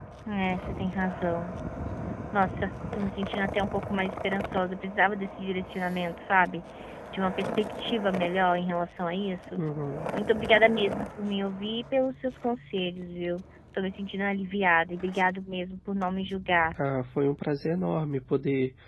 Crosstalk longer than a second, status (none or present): none